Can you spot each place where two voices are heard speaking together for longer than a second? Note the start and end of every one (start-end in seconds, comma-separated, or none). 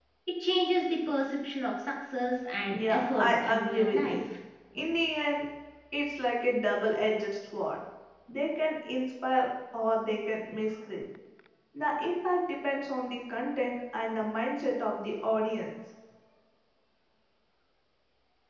2.7-4.2